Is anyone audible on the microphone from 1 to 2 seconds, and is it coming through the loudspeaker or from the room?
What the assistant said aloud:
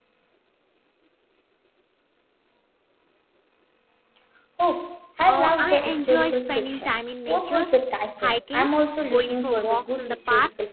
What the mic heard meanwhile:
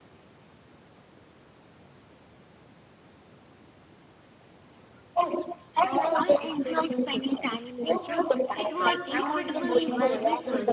neither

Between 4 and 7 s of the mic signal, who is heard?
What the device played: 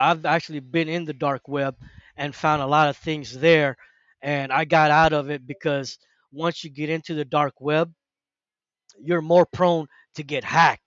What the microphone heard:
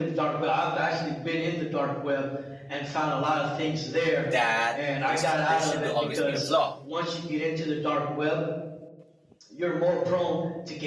both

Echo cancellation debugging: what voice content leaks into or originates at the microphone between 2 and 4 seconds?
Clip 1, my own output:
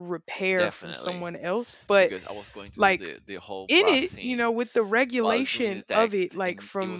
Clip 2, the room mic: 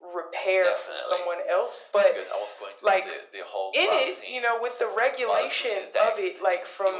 echo only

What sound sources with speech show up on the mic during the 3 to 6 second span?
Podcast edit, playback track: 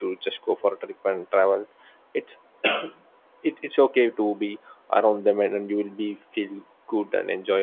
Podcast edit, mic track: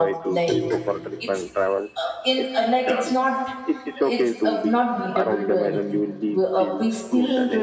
both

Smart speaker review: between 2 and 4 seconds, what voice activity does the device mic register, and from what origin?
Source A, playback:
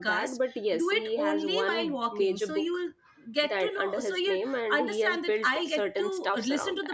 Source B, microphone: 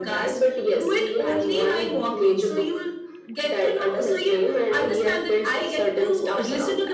echo only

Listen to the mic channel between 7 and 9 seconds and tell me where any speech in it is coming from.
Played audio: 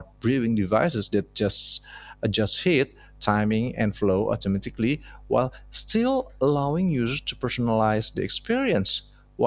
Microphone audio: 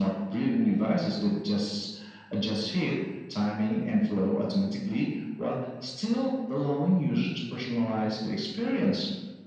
echo only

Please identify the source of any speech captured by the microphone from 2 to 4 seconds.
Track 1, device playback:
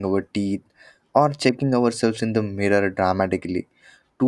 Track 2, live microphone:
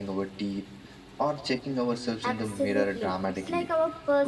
both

